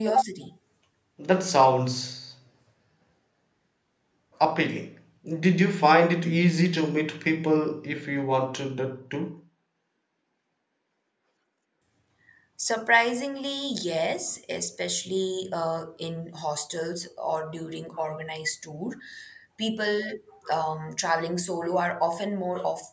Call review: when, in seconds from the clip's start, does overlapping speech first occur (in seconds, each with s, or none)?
none